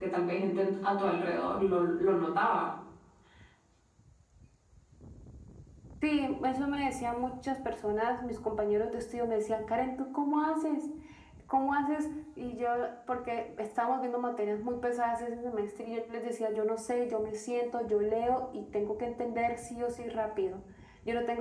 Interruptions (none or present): none